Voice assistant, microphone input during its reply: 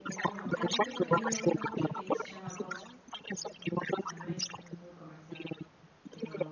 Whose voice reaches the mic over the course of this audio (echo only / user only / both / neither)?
both